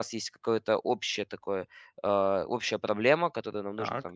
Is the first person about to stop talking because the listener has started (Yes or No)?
No